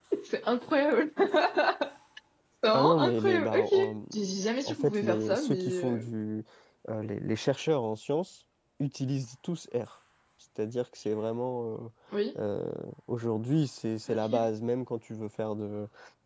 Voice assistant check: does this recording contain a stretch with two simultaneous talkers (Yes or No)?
Yes